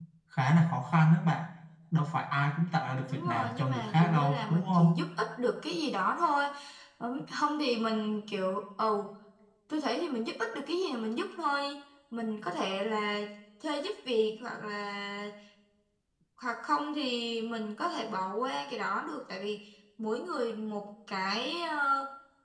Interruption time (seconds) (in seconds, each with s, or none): 3.1 s